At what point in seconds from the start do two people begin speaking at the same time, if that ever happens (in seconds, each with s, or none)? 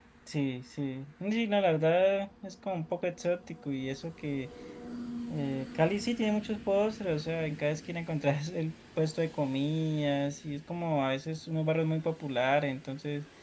none